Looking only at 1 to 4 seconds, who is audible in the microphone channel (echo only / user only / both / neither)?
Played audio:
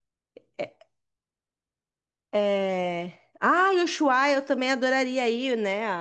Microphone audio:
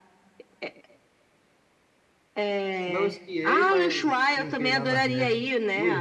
both